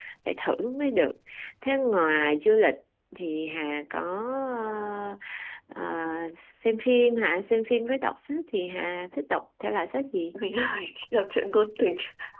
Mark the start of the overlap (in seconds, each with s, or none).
none